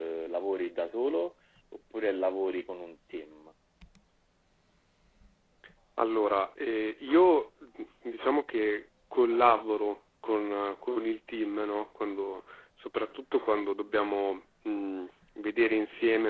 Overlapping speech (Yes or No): No